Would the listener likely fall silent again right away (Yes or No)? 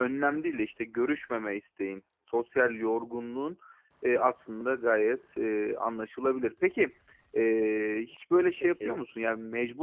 Yes